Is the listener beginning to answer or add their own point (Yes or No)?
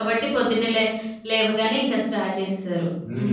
Yes